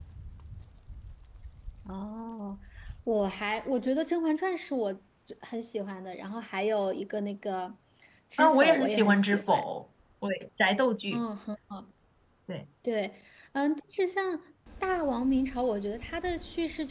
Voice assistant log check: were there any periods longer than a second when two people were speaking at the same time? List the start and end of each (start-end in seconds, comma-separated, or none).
8.4-9.6